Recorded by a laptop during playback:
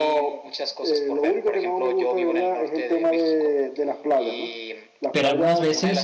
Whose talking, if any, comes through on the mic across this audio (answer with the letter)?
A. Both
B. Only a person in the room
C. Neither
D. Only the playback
A